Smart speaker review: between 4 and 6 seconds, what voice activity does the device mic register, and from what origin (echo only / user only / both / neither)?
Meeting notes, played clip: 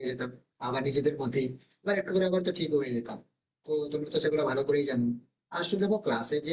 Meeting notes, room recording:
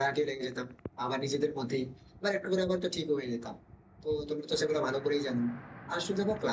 echo only